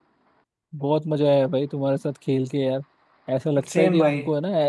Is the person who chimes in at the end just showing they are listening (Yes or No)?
Yes